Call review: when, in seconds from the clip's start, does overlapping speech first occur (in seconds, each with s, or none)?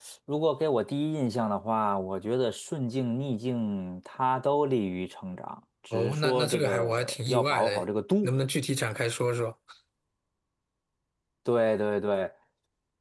5.9 s